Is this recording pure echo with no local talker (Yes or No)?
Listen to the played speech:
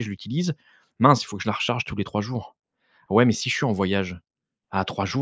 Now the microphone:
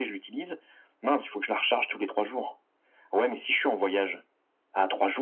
Yes